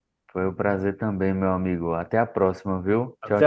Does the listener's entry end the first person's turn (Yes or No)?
Yes